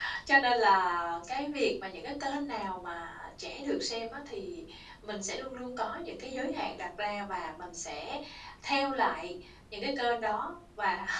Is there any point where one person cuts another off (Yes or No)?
No